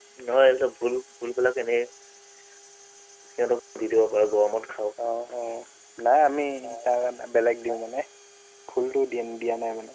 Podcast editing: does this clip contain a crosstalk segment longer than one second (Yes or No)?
No